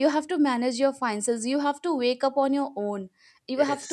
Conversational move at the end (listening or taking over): listening